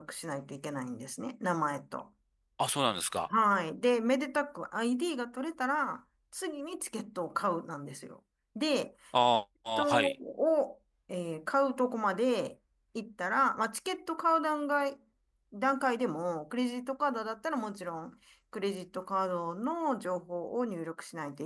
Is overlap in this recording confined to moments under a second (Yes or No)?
Yes